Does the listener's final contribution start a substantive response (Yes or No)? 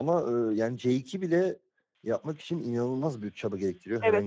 Yes